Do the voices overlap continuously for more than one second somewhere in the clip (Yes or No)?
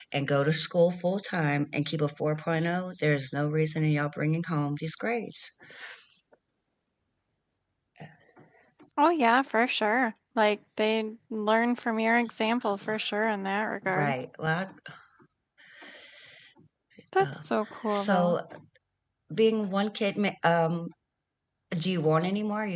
No